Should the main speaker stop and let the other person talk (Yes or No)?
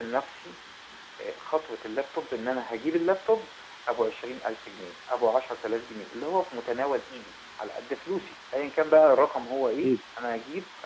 No